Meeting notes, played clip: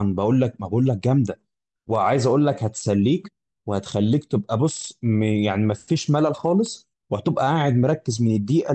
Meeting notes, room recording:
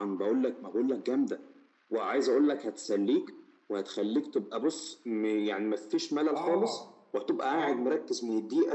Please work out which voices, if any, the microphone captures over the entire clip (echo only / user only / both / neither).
both